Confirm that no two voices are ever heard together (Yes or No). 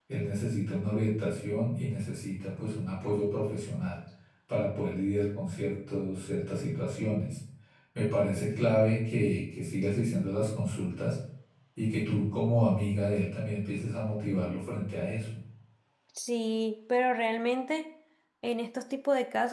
Yes